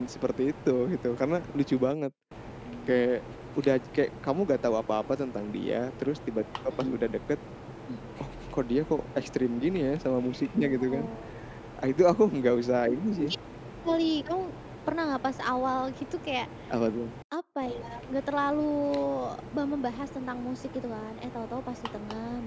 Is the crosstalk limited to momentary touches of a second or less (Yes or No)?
Yes